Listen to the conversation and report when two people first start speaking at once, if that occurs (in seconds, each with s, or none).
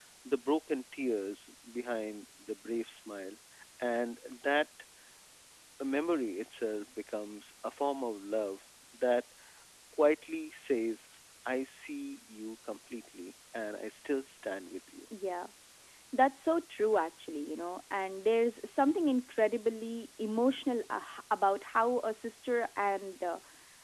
none